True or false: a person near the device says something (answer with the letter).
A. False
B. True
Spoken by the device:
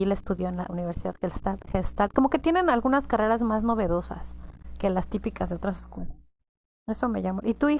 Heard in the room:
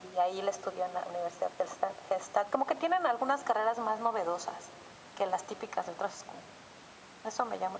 A